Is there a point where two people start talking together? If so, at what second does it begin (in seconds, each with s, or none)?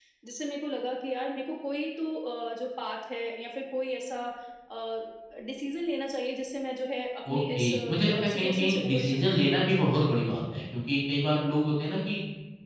7.2 s